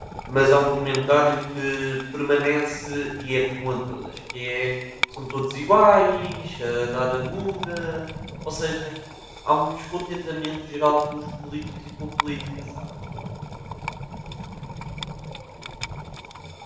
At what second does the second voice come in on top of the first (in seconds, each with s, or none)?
none